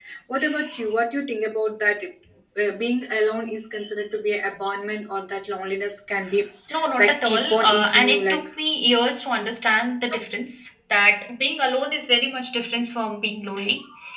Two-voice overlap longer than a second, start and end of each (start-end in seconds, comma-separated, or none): 7.0-8.4